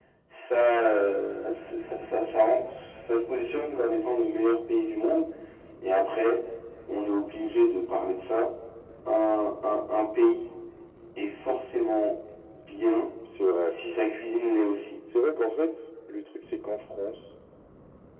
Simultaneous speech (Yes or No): No